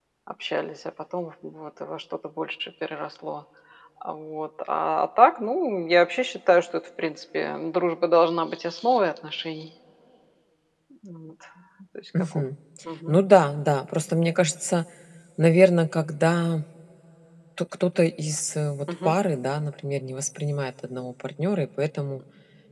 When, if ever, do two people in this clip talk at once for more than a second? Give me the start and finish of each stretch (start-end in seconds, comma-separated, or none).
none